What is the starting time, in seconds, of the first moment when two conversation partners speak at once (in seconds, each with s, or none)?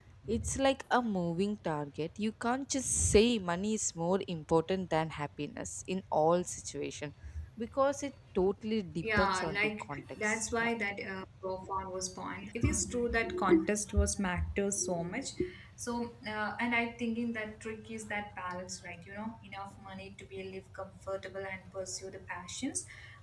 9.0 s